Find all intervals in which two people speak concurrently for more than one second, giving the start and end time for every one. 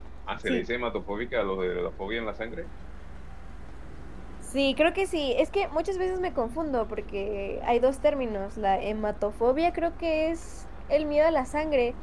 none

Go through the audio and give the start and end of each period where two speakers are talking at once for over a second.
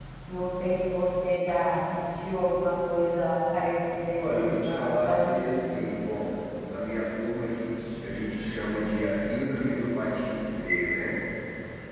4.2-5.5

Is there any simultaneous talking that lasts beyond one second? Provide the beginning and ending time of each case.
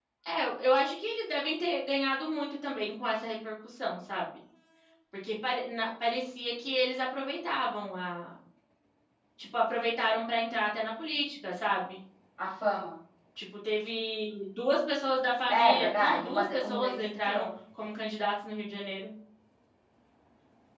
15.6-17.5

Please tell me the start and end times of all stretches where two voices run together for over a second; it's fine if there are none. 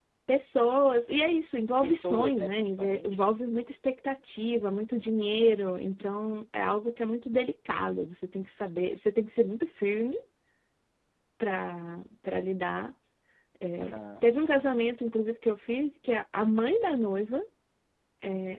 1.8-3.3

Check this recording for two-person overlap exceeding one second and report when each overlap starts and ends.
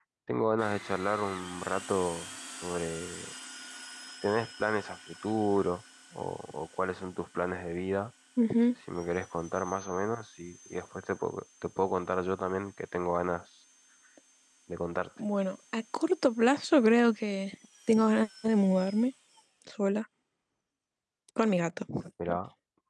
none

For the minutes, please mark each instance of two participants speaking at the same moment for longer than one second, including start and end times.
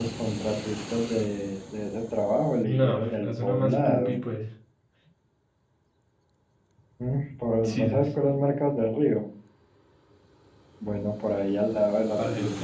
2.6-4.2

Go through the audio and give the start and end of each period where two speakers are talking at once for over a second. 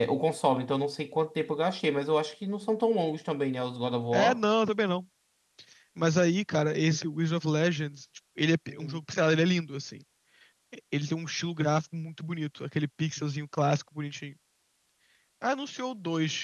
none

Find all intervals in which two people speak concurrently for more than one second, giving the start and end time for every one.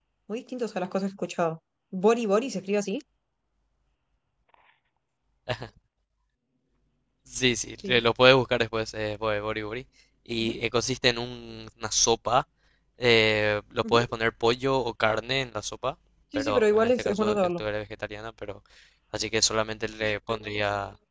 16.4-17.6

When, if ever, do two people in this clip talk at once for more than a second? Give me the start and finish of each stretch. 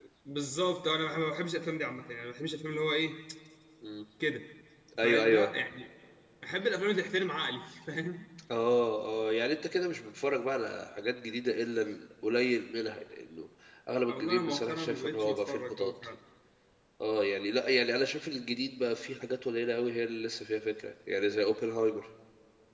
14.1-15.9

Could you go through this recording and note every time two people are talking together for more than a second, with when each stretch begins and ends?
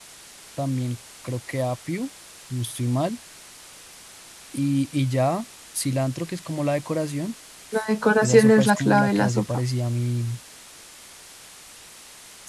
8.2-9.4

